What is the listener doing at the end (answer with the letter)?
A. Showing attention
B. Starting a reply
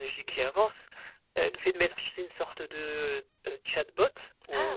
A